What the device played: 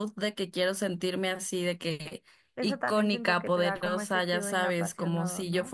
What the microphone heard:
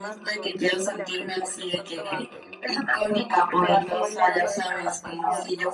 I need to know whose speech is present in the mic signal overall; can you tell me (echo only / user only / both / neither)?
both